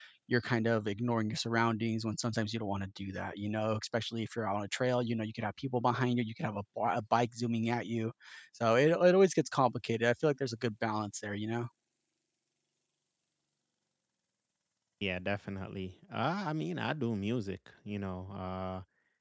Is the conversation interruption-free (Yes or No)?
Yes